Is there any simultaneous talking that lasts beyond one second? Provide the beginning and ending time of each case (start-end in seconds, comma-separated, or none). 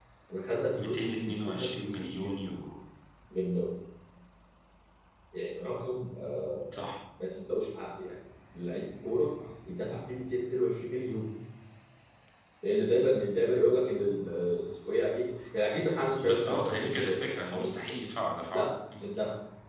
0.8-2.3, 16.2-17.7